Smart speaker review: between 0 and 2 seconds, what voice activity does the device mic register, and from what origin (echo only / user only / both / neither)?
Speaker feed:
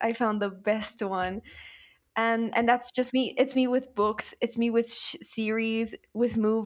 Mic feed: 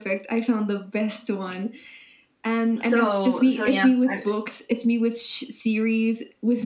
echo only